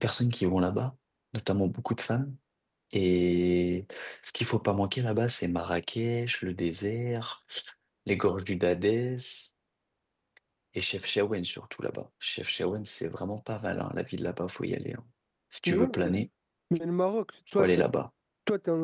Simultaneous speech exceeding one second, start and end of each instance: none

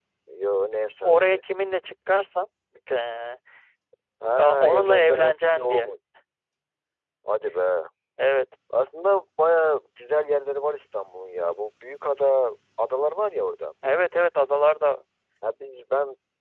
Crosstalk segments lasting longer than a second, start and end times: 4.4-5.9

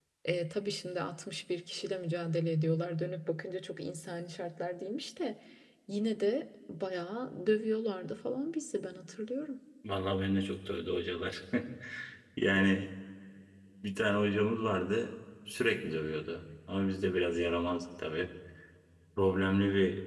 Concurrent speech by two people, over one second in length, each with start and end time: none

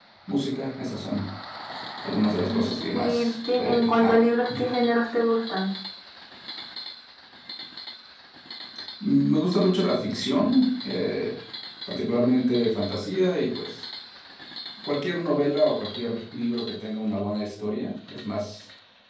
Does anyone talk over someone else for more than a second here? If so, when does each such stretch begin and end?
2.5-4.2

